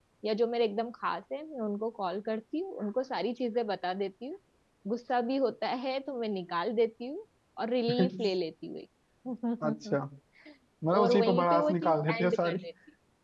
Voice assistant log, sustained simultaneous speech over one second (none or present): present